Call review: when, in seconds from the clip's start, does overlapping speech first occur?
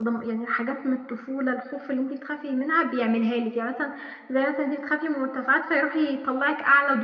none

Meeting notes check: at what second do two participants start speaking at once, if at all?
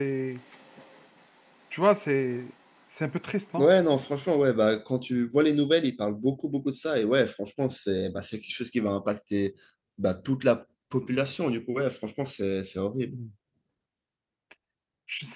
none

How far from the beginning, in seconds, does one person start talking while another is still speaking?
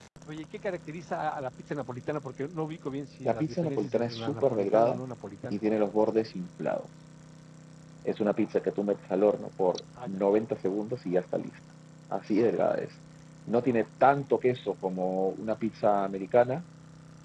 3.3 s

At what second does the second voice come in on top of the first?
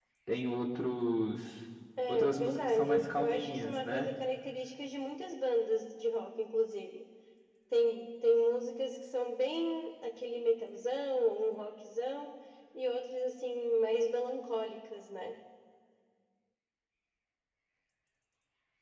2.1 s

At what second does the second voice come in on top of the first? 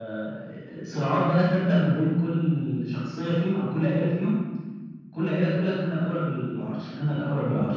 none

